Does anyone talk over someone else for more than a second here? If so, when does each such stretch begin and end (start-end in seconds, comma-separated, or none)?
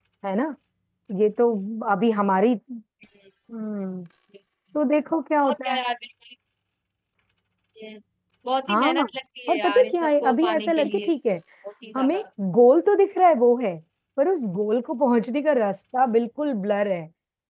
9.5-11.1